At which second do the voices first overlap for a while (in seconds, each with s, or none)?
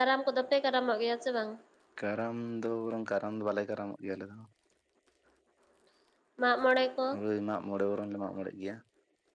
none